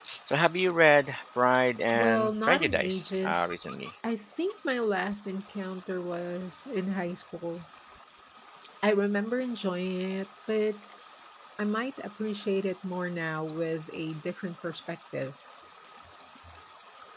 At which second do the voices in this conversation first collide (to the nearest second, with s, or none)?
2 s